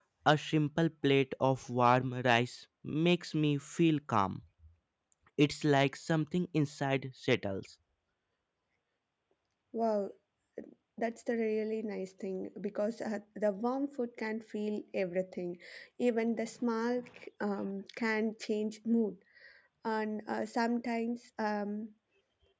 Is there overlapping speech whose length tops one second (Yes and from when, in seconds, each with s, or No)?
No